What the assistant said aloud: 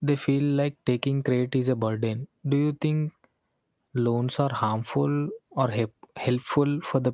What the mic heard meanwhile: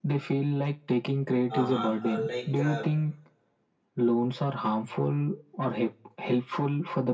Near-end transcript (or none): uh, uh, like uh,